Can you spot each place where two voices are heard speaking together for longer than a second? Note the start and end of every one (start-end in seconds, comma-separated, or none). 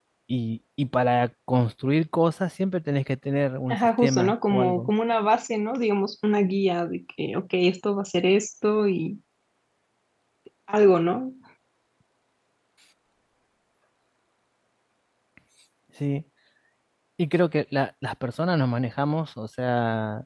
3.7-4.9